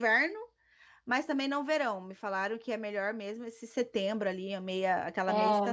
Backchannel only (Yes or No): No